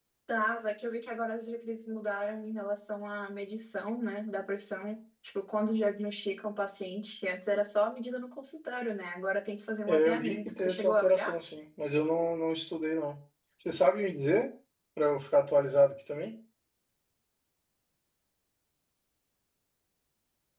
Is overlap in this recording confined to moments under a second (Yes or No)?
No